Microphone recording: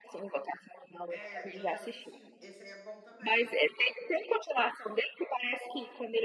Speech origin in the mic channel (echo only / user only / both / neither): both